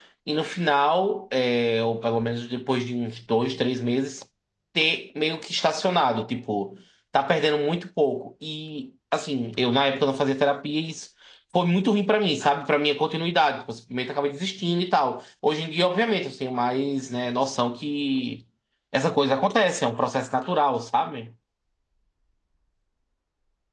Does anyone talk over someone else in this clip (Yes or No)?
No